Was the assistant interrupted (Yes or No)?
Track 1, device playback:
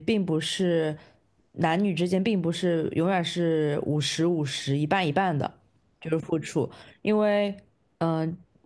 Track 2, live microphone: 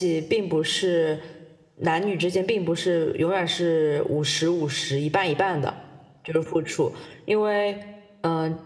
No